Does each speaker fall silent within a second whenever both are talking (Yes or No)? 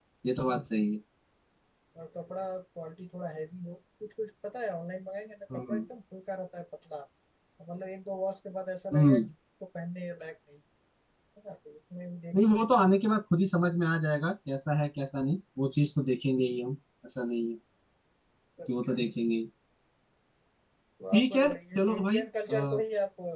No